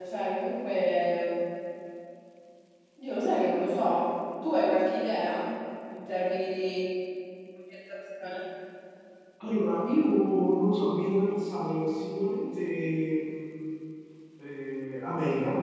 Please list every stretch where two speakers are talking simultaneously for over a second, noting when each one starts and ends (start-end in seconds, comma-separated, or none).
none